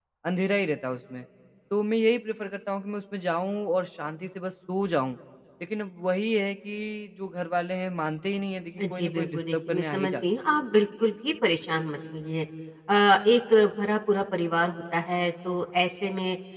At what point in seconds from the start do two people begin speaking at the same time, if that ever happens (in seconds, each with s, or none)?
8.8 s